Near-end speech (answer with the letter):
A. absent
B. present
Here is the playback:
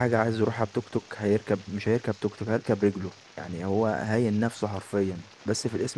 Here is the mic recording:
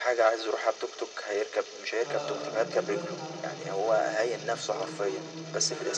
B